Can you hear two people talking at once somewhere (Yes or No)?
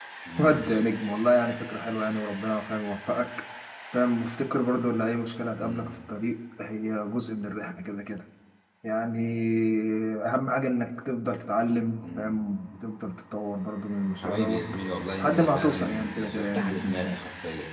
Yes